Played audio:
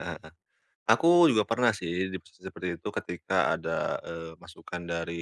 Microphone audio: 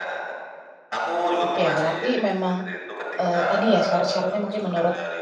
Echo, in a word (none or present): present